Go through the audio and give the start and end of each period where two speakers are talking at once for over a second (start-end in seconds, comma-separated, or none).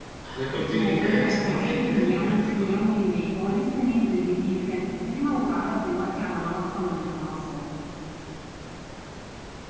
0.5-2.7